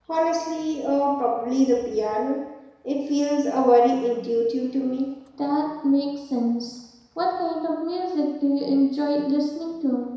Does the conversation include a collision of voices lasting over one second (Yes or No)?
No